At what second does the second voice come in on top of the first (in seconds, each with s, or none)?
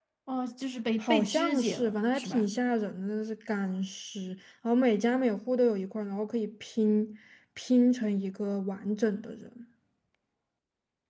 1.0 s